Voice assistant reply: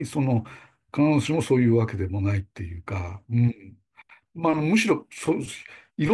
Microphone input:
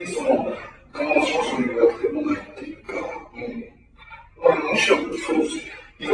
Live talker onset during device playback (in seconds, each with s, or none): none